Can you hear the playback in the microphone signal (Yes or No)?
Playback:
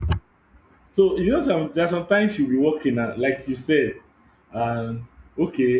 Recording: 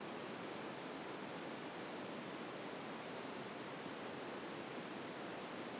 No